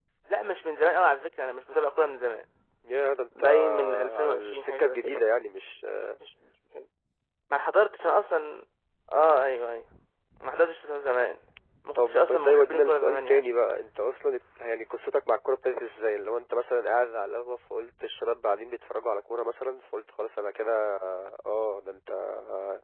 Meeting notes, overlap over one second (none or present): present